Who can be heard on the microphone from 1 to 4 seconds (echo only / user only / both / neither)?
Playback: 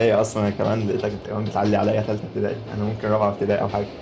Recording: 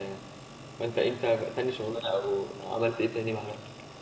user only